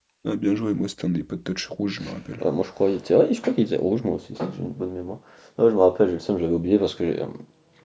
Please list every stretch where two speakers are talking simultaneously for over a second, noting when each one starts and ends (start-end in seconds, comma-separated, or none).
none